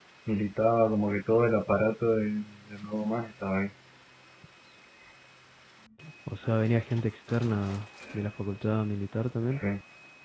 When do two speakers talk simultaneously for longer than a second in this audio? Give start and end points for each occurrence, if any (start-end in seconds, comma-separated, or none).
none